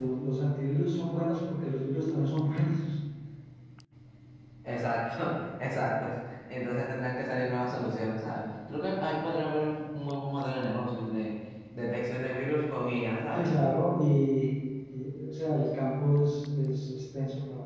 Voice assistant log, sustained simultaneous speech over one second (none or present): none